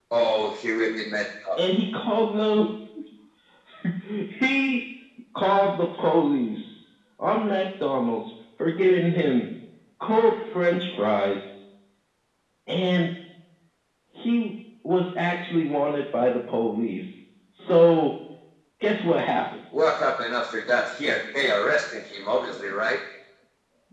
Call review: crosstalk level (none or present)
none